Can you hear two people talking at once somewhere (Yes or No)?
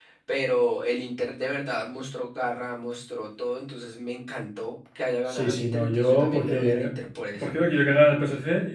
Yes